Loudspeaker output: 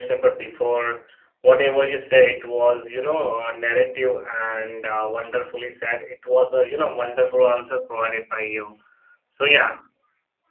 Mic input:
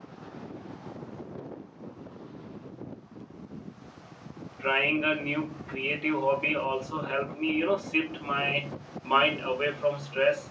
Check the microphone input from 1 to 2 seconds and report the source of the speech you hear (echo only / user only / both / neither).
neither